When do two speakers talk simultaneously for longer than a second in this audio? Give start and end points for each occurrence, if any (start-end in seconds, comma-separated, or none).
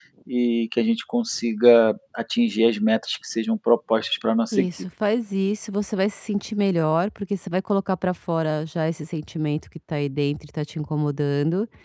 none